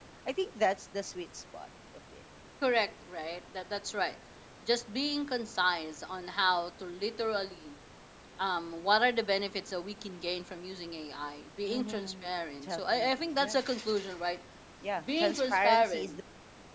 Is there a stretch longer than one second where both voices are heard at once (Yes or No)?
Yes